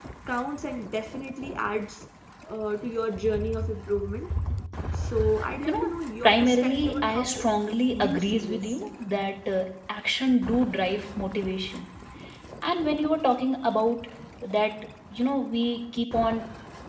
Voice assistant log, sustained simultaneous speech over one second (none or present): present